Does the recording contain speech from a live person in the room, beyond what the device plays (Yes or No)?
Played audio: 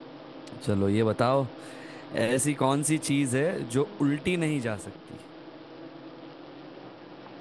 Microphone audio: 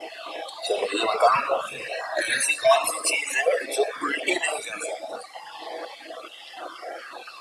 No